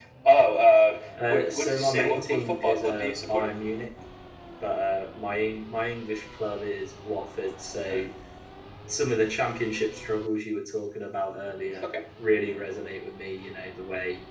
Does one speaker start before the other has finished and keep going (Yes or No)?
Yes